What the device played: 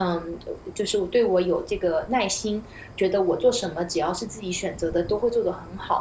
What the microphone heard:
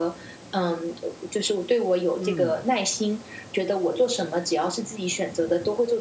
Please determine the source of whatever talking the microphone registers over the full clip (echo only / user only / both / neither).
both